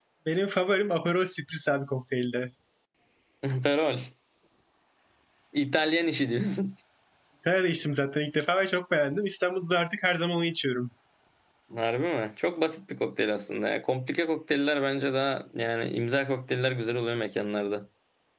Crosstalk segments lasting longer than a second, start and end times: none

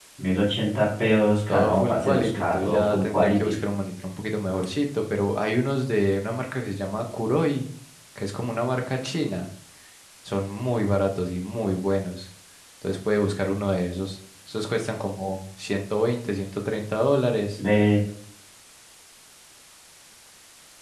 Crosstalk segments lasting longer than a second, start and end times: 1.5-3.6

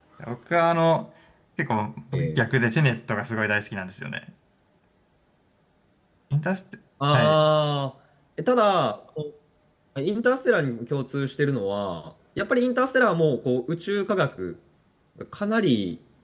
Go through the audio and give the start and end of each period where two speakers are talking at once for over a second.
none

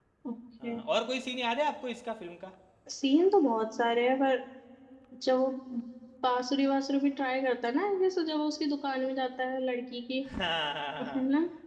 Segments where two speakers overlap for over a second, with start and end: none

